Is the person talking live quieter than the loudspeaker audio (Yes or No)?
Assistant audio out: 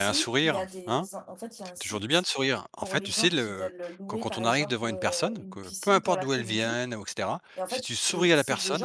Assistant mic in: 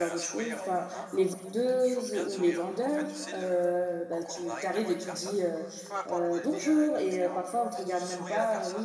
No